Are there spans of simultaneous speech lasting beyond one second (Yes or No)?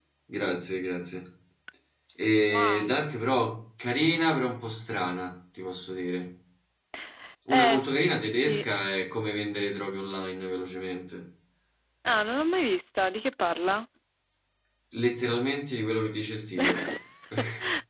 No